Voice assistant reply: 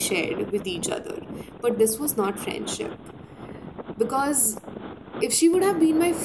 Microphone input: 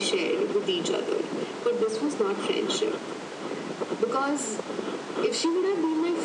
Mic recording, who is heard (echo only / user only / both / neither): echo only